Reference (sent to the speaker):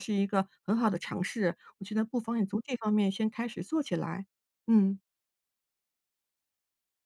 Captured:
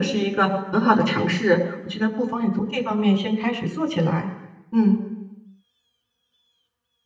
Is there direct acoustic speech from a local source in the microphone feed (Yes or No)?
No